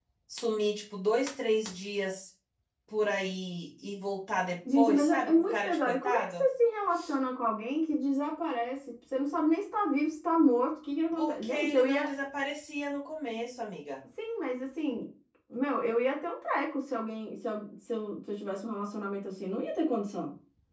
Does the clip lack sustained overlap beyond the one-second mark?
No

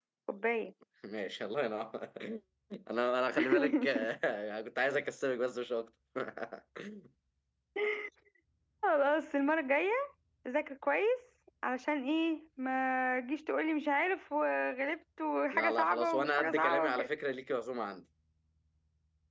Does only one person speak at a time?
No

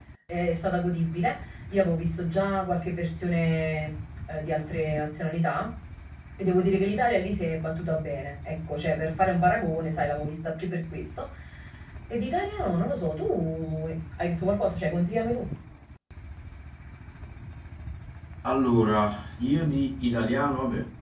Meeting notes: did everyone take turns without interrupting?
Yes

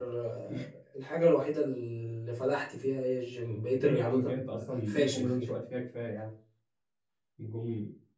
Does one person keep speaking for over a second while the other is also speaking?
Yes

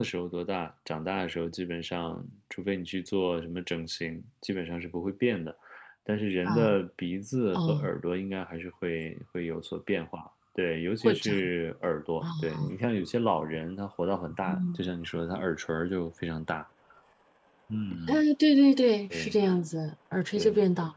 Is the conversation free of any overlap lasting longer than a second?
Yes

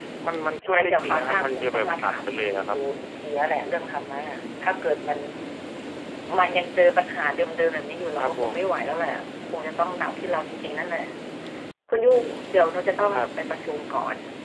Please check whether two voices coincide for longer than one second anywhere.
Yes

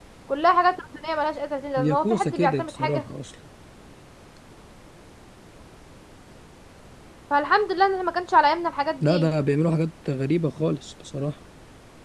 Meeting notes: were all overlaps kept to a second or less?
No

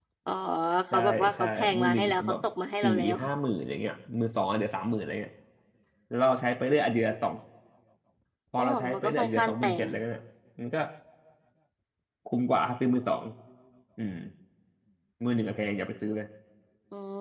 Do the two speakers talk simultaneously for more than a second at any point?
Yes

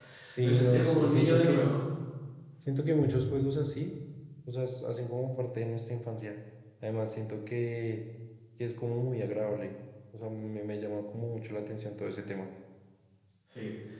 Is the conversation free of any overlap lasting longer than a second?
No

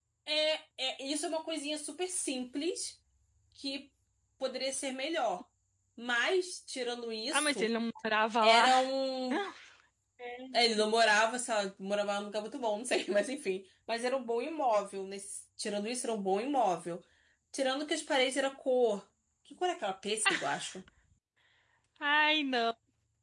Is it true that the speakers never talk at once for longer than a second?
Yes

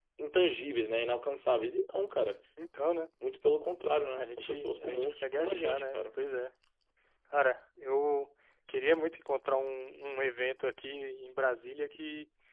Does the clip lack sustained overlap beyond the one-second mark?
No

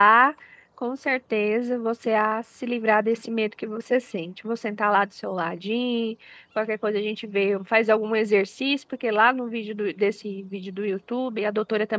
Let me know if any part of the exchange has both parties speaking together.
No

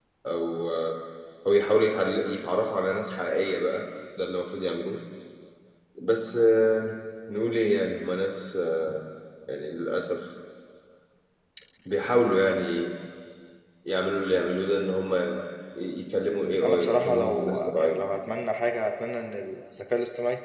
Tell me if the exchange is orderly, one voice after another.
No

